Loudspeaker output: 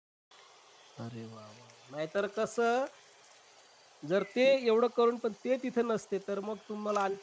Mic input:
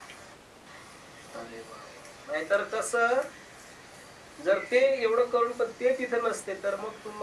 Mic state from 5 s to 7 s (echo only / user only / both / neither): echo only